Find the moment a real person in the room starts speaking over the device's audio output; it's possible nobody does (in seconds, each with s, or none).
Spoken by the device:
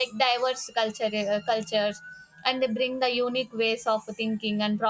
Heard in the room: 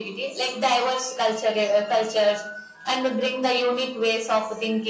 none